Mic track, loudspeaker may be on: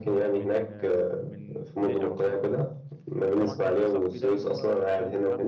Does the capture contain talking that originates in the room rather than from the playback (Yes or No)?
Yes